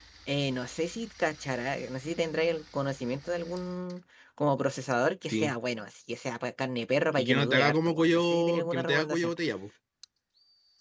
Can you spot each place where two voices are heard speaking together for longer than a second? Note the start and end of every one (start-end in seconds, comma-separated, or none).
7.2-9.3